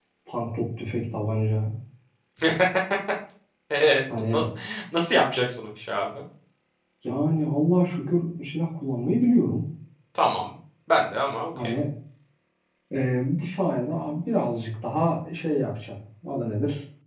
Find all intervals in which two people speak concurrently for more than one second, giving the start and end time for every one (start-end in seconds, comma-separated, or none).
none